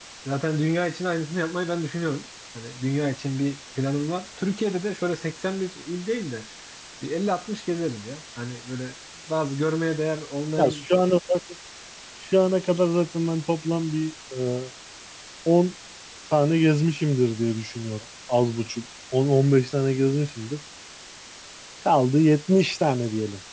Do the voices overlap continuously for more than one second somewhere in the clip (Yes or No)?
No